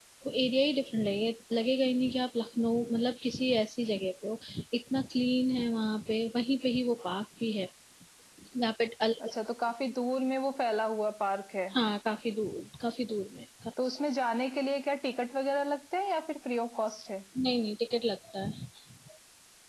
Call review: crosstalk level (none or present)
none